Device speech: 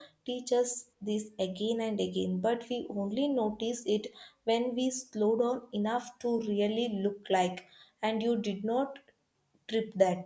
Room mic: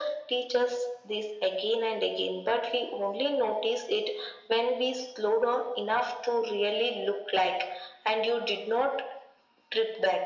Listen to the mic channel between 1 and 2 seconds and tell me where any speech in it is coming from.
echo only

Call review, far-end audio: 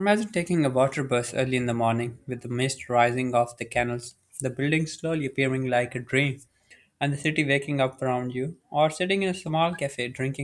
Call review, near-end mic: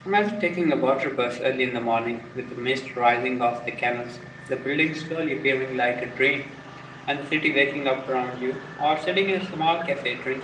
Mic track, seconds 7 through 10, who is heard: echo only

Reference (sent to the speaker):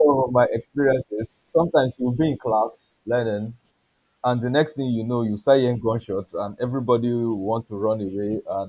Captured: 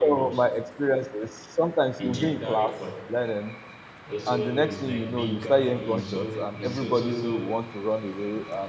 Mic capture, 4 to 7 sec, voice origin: both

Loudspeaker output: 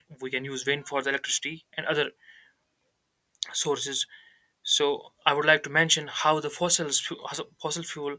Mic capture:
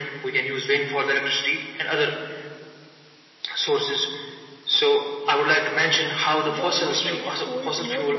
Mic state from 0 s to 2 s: echo only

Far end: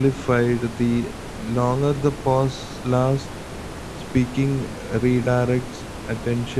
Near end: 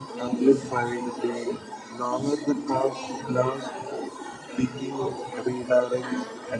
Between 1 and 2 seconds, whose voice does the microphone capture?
both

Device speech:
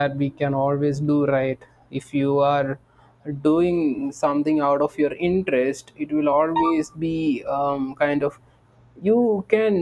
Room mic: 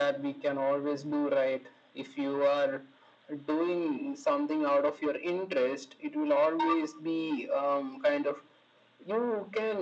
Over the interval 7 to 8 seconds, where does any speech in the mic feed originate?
echo only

